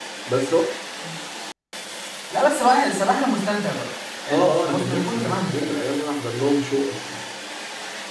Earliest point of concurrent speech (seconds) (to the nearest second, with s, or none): 4 s